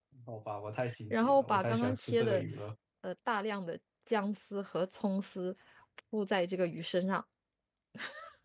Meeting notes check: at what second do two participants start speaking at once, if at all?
1.1 s

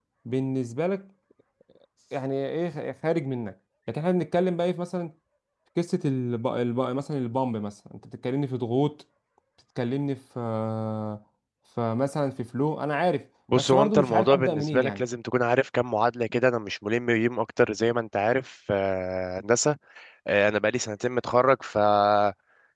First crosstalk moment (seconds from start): 13.5 s

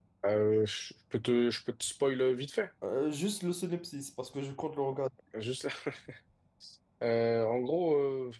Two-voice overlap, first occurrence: none

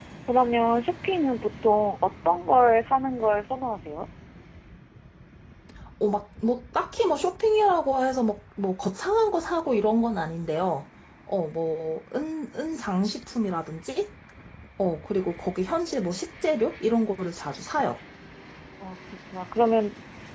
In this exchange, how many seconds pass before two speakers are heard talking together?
none

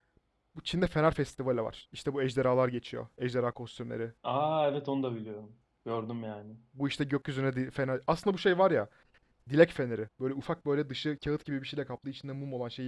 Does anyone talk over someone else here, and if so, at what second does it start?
none

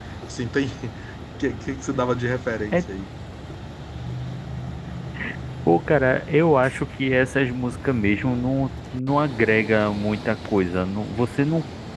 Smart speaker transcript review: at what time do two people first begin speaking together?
none

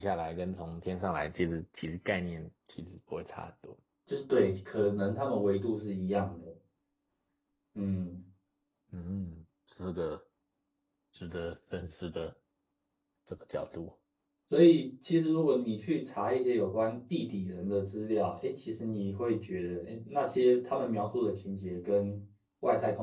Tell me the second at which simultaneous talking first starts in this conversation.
none

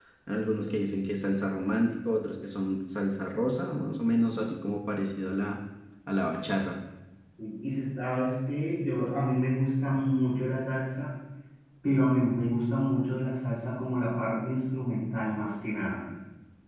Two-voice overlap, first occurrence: none

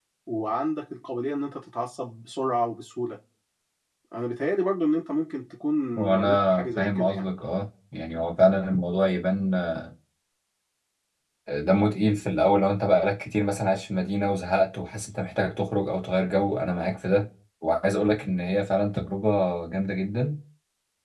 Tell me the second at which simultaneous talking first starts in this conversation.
6.0 s

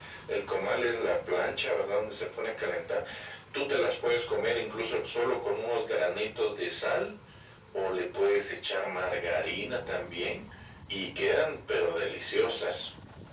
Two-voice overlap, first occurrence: none

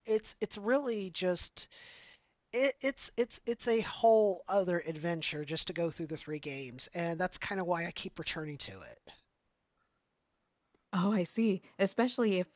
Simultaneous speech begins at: none

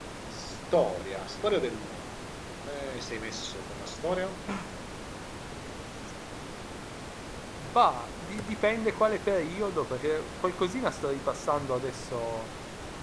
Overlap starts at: none

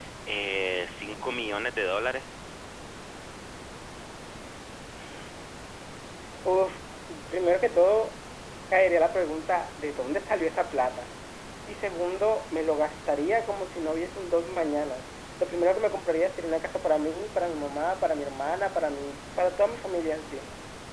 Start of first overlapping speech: none

